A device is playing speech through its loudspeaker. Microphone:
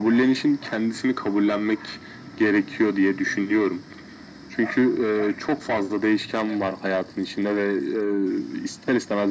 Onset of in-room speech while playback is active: none

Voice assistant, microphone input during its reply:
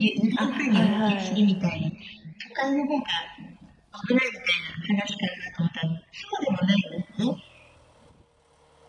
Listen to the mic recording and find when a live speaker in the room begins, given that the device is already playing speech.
0.3 s

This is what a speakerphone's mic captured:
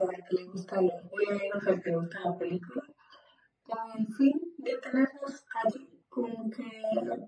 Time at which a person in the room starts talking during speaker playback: none

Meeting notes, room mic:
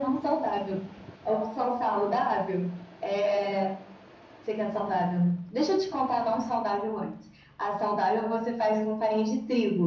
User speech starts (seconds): none

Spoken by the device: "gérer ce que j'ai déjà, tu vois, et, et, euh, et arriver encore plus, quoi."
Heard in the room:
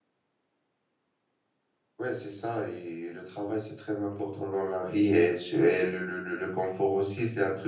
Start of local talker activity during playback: 2.0 s

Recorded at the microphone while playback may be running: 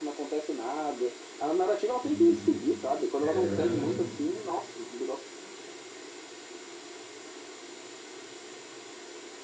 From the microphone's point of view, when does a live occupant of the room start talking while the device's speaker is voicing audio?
2.0 s

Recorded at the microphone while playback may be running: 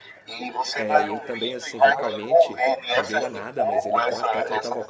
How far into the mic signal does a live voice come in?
0.7 s

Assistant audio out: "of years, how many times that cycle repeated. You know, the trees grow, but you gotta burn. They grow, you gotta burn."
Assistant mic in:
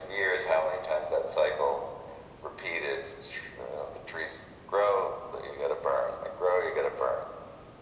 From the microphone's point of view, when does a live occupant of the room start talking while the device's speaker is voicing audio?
none

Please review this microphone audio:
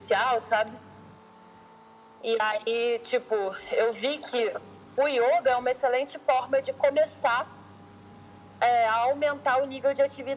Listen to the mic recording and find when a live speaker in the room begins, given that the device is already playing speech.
none

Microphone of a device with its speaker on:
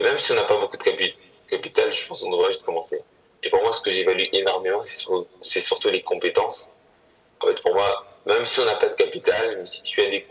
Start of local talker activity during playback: none

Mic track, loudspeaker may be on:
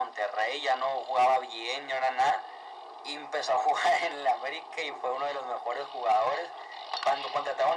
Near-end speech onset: none

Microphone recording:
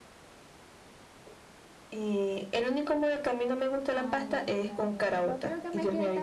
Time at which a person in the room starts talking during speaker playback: 3.9 s

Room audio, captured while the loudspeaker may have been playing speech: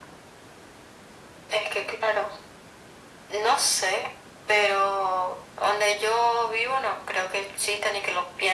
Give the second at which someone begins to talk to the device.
none

